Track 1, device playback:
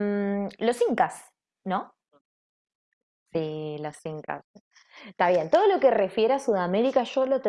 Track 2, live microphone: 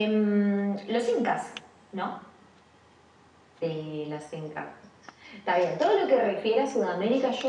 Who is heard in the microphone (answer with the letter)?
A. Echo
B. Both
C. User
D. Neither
A